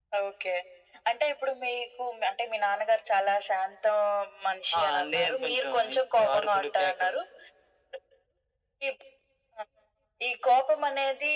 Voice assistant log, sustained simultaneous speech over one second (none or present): present